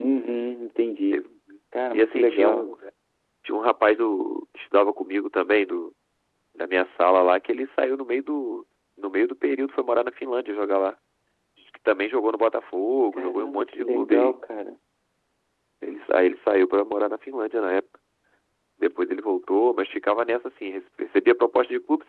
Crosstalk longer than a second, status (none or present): present